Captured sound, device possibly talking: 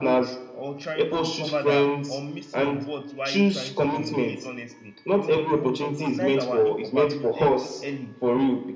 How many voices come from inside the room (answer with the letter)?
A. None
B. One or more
B